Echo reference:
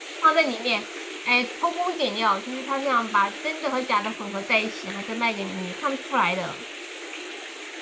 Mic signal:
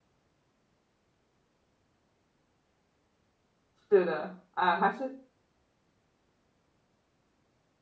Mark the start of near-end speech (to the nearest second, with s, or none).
4 s